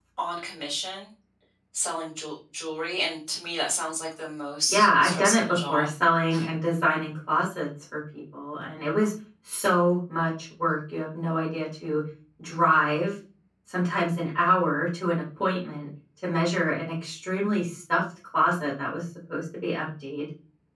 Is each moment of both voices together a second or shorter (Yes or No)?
No